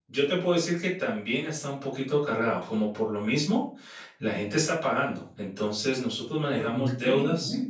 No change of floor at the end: No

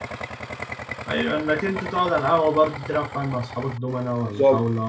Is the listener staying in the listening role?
No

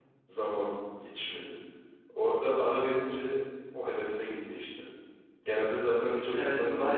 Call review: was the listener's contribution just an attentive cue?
No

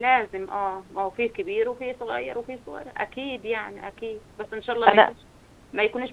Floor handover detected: No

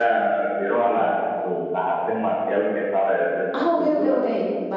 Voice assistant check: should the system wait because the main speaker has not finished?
No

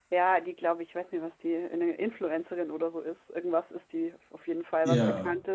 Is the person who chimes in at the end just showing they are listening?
Yes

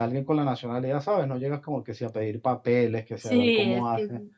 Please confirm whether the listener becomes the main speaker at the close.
Yes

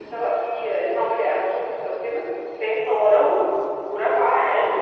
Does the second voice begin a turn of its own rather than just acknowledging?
No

